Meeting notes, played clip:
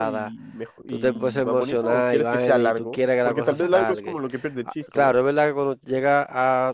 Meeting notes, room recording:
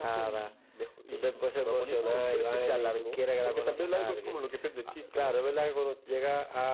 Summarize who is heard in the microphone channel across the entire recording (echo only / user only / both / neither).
echo only